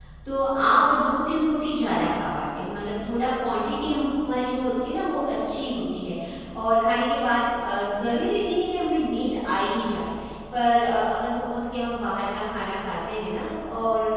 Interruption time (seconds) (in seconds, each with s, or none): none